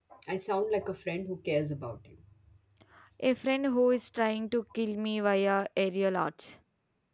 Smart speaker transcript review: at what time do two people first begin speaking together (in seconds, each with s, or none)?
none